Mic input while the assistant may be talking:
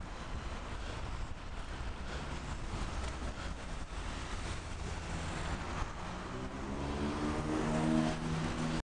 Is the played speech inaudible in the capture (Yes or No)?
Yes